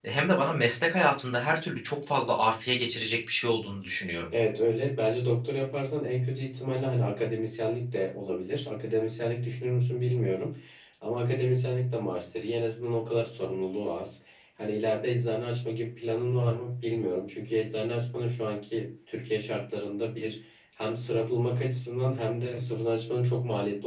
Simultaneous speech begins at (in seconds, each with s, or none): none